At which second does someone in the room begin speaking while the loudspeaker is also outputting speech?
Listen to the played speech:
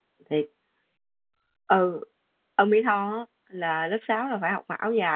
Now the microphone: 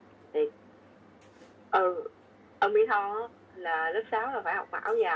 none

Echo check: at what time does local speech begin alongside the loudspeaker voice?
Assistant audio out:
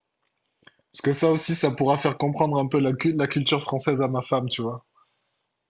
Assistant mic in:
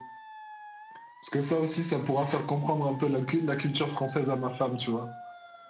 none

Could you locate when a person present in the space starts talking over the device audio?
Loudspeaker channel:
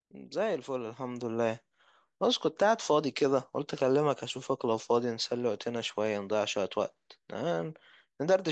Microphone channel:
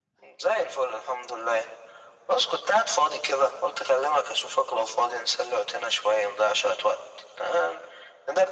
none

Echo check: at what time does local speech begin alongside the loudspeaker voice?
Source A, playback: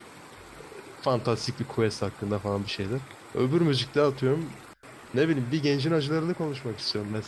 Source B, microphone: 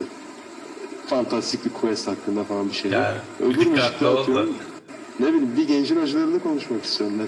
2.9 s

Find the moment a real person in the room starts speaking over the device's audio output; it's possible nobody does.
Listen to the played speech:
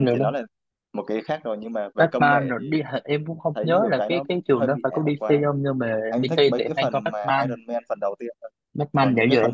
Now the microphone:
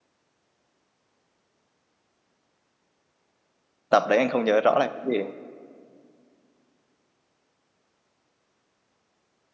3.9 s

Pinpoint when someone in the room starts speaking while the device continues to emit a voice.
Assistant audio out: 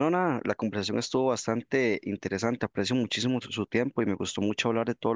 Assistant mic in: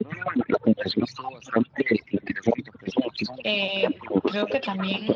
3.4 s

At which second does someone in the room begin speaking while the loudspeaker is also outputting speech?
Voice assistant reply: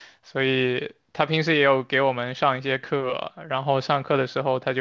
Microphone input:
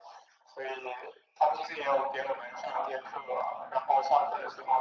none

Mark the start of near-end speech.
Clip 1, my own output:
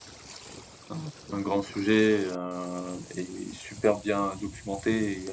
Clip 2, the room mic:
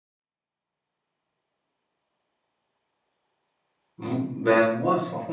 4.0 s

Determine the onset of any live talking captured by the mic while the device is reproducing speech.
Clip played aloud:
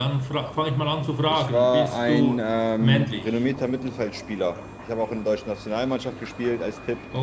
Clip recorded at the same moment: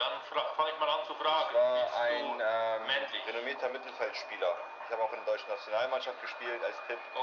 none

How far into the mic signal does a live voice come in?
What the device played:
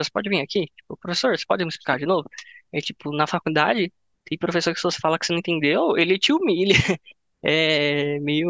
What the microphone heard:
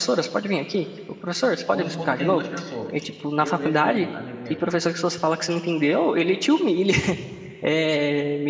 1.7 s

